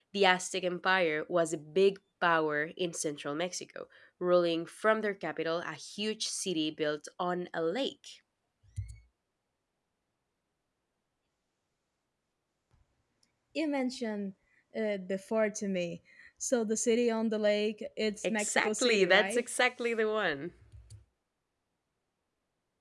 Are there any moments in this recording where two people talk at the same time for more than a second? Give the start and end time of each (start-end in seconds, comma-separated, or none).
18.2-19.5